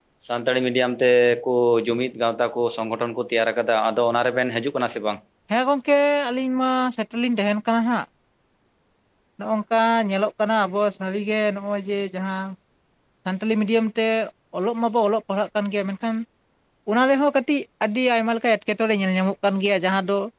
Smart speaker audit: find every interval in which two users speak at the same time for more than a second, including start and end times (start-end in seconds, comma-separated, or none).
none